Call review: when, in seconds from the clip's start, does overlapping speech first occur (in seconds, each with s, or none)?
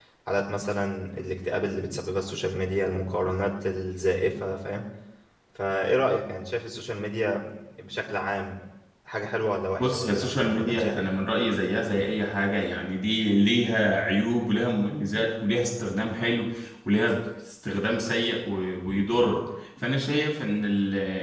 9.8 s